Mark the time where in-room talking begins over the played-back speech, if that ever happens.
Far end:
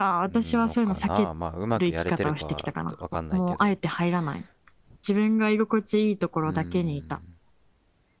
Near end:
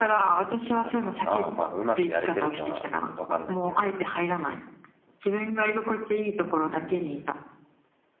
none

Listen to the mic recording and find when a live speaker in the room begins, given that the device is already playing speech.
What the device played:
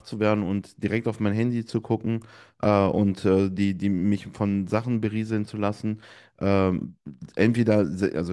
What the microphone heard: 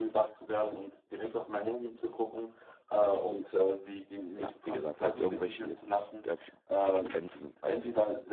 4 s

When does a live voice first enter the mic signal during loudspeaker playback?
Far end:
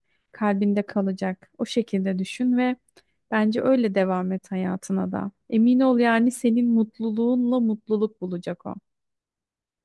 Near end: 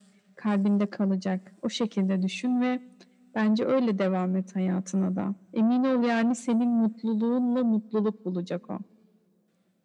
none

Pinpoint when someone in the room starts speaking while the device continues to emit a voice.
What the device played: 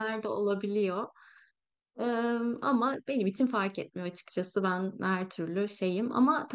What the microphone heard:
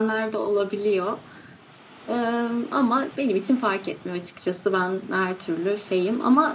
none

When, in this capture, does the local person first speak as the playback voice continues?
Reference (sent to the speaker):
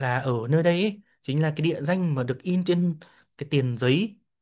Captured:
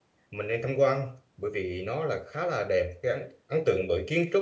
0 s

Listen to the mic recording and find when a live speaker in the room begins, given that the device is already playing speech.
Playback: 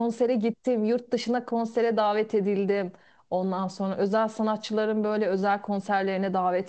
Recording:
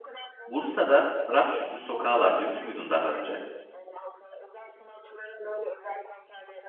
0 s

